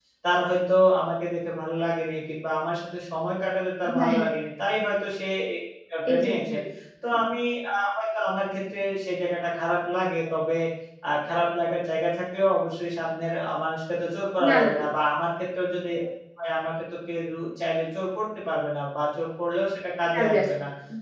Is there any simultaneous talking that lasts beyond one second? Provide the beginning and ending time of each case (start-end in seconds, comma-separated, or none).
none